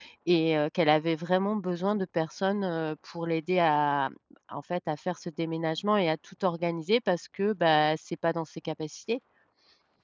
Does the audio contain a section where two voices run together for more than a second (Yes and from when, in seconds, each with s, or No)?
No